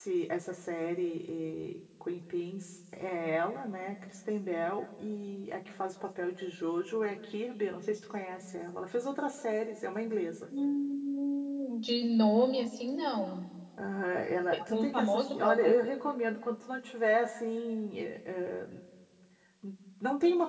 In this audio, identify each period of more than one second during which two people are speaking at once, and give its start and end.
14.5-15.8

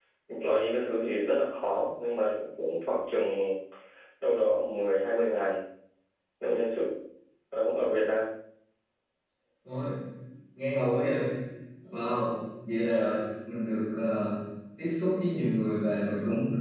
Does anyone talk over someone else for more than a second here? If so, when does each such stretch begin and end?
none

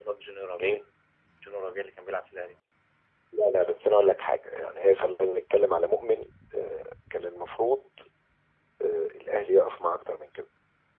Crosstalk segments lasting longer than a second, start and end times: none

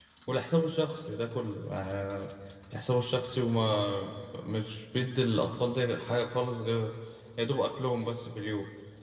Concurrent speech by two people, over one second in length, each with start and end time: none

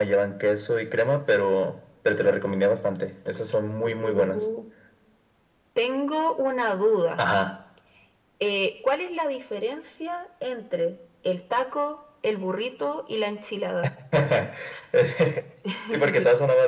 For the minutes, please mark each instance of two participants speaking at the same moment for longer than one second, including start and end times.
none

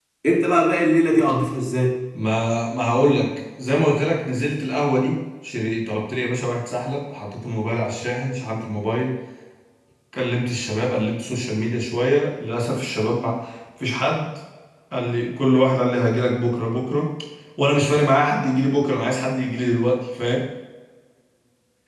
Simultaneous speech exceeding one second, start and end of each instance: none

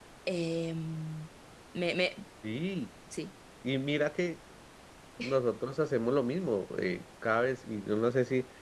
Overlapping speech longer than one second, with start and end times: none

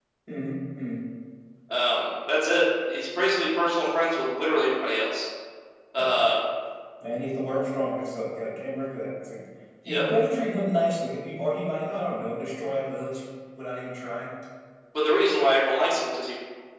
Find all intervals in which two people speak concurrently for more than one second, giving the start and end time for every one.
none

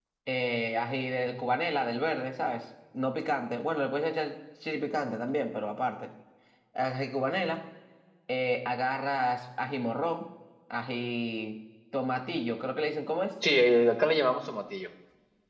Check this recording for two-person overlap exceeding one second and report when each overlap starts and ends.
none

